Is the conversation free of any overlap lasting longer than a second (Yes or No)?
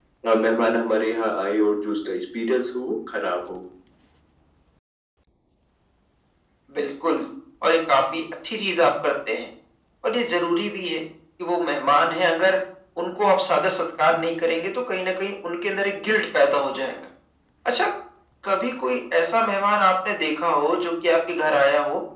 Yes